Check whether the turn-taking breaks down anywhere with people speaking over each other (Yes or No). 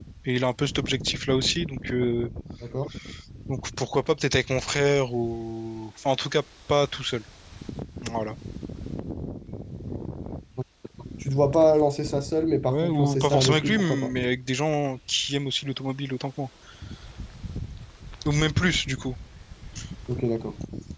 Yes